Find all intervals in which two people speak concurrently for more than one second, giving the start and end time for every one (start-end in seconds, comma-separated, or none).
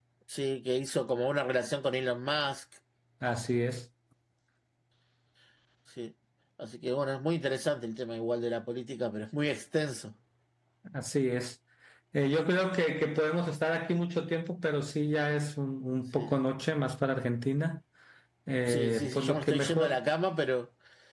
18.7-20.0